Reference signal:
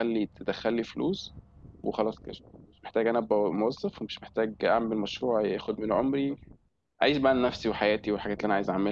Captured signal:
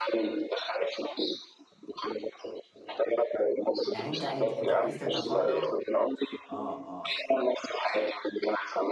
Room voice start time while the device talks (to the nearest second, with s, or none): 4 s